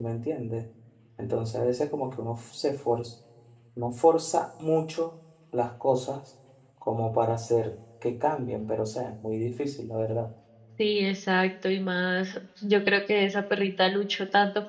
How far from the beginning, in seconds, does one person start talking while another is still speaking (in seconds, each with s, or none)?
none